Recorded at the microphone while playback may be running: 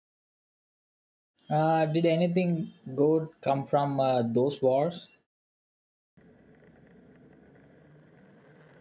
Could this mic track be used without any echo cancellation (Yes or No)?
Yes